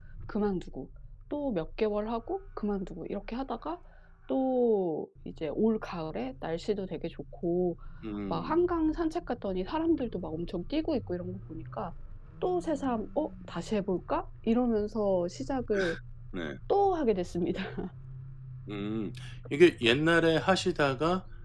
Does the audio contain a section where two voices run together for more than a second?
No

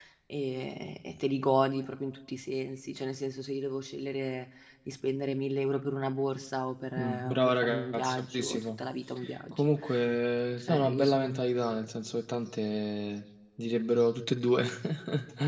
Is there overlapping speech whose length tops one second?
Yes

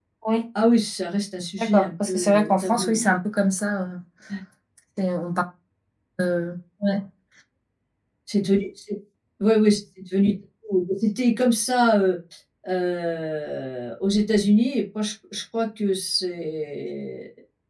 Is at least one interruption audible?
Yes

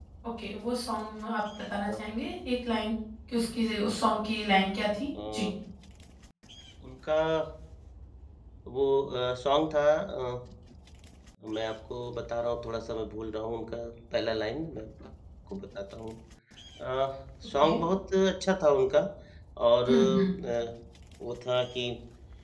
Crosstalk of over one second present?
No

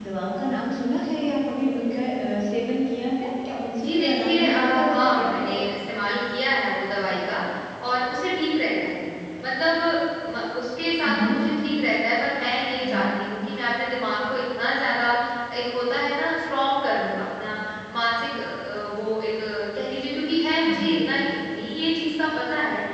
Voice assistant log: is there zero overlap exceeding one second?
No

